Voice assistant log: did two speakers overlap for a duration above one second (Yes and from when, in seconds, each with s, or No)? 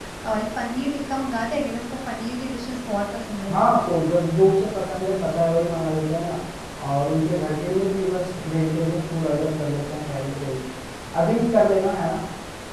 No